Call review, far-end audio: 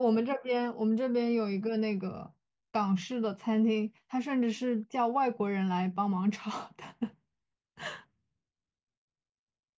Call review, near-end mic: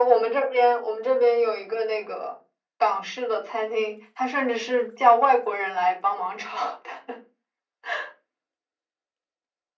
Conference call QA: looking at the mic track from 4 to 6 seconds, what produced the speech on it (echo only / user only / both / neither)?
echo only